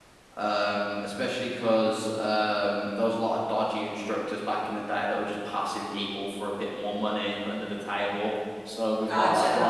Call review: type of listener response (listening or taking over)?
listening